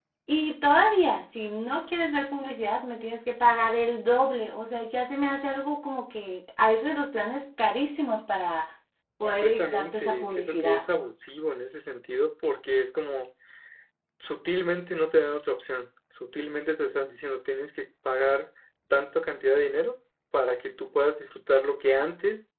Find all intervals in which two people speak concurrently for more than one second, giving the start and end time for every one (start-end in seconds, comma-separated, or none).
9.2-10.8